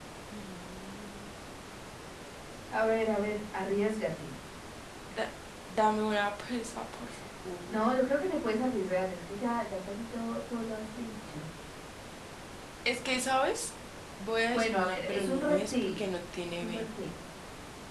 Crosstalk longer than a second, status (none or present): present